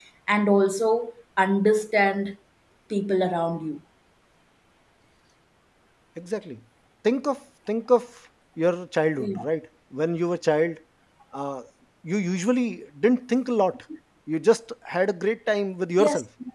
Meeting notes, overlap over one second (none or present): none